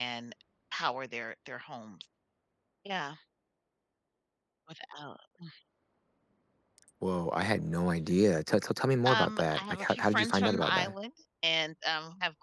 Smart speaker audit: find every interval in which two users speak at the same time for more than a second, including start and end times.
9.1-10.9

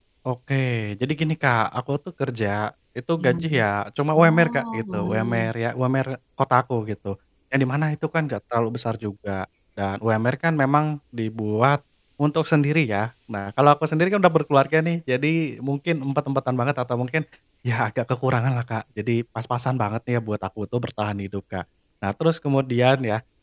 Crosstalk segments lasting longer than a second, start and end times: 4.2-5.5

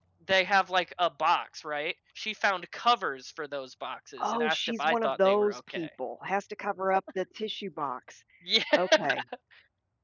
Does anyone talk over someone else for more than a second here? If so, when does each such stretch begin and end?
4.2-5.9

